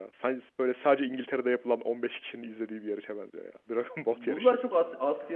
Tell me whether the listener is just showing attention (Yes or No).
No